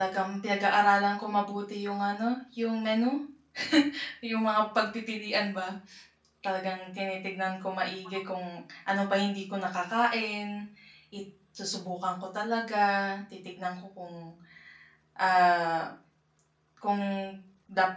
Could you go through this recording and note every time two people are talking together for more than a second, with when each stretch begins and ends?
none

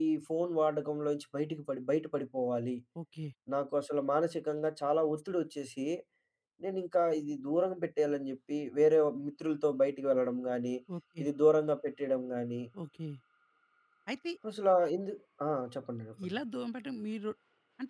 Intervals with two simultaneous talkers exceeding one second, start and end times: none

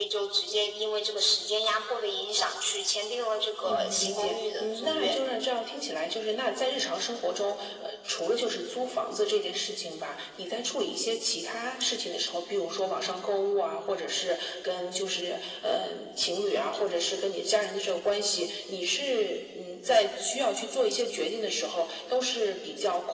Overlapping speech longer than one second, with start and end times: 3.6-5.1

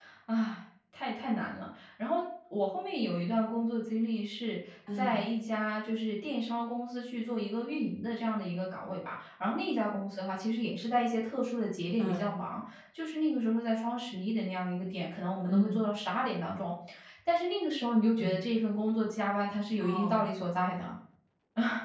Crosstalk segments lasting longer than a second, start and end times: none

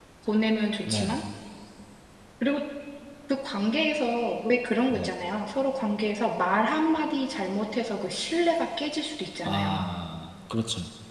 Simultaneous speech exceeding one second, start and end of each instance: none

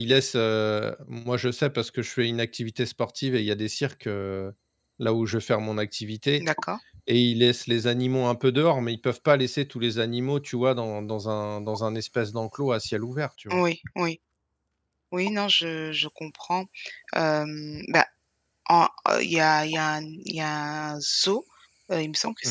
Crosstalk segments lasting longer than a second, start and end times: none

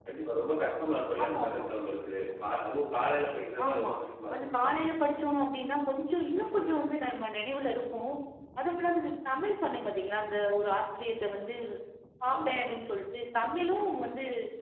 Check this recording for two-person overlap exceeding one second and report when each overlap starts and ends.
none

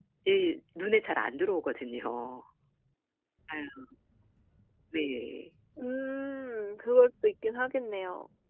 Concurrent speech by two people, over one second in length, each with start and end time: none

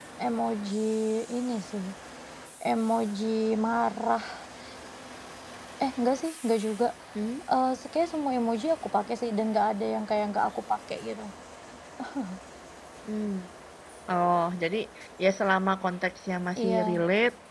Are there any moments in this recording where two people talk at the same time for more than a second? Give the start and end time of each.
none

